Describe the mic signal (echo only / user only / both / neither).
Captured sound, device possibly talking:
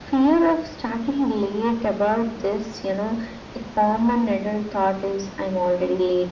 echo only